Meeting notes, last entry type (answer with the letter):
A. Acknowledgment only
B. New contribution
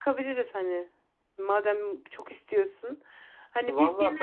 B